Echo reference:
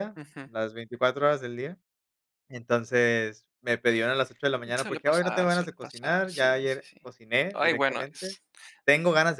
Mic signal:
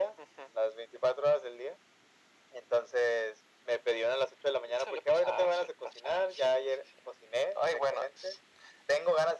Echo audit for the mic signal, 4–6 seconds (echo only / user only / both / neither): echo only